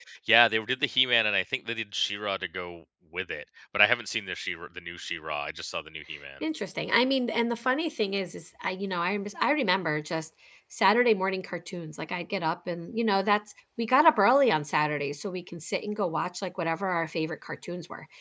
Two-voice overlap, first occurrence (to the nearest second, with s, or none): none